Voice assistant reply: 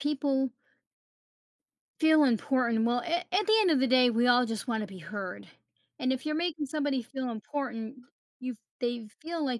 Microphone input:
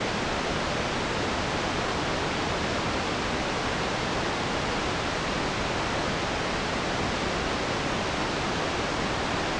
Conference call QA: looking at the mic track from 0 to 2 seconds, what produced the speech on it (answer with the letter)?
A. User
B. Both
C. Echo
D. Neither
D